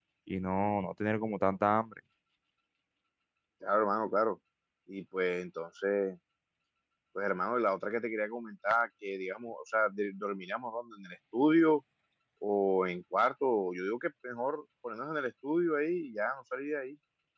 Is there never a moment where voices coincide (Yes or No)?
Yes